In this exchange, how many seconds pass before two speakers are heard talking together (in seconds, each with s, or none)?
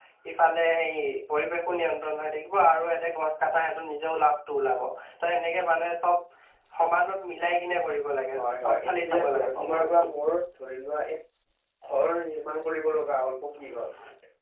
8.4 s